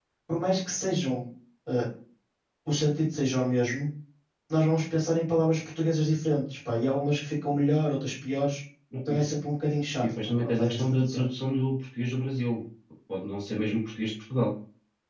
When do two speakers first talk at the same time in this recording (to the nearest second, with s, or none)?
10 s